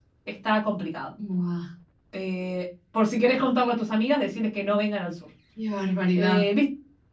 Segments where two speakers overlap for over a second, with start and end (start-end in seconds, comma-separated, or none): none